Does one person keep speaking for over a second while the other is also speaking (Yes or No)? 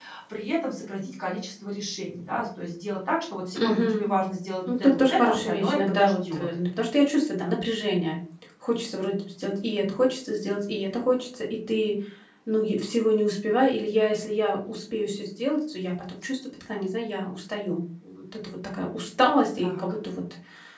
Yes